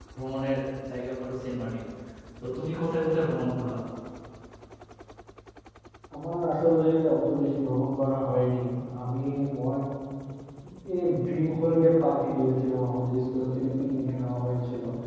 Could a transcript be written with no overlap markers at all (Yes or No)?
Yes